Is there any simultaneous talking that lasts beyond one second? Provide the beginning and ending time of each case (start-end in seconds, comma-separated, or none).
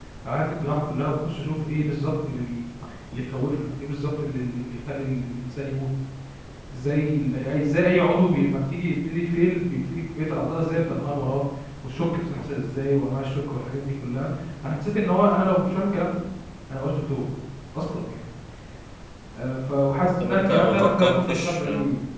20.2-21.7